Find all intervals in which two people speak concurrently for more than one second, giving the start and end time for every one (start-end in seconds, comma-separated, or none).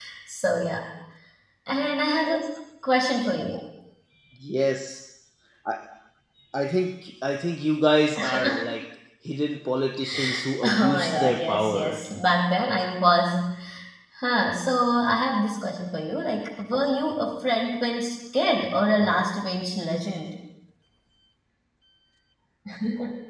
10.6-12.0